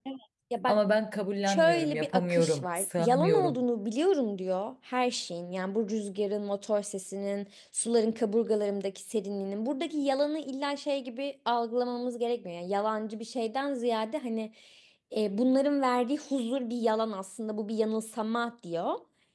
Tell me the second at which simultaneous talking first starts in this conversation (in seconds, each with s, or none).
1.4 s